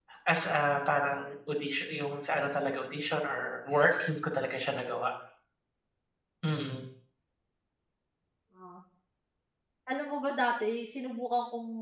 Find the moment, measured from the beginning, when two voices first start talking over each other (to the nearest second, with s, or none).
none